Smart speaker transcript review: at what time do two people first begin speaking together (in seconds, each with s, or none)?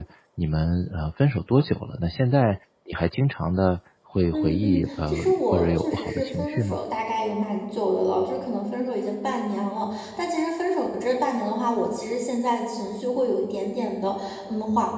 4.3 s